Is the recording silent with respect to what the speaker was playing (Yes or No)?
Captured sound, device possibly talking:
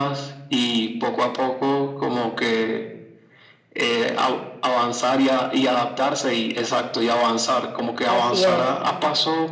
No